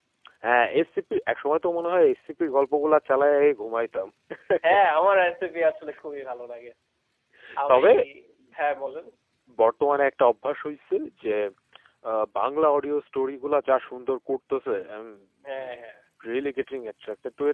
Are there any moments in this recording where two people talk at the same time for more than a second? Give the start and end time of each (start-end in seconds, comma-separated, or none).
none